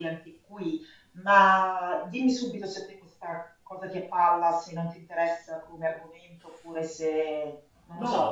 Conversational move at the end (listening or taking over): taking over